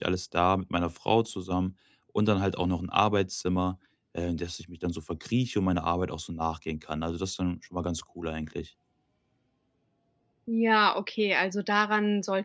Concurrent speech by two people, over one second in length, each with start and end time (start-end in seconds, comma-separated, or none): none